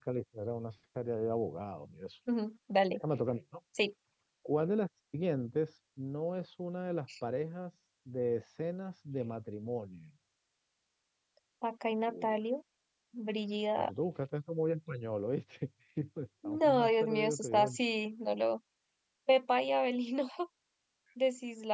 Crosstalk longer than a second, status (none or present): present